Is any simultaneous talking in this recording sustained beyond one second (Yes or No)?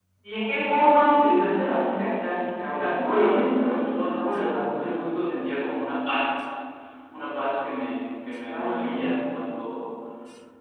Yes